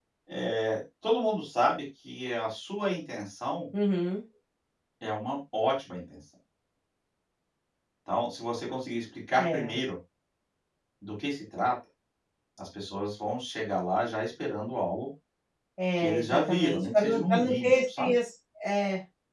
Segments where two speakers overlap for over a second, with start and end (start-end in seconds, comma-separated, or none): 16.0-18.1